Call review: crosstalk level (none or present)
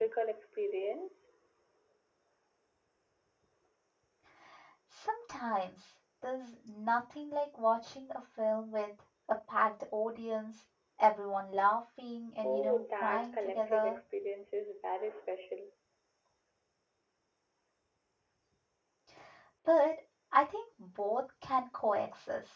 present